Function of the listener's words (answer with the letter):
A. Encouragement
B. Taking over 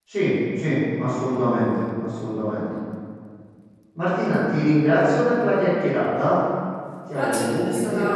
B